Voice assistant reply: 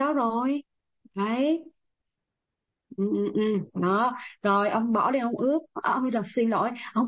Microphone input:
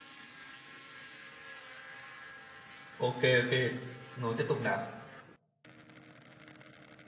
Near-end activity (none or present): present